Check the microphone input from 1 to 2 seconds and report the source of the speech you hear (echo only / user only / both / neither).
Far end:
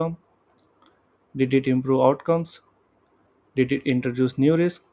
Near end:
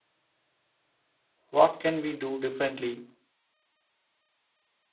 user only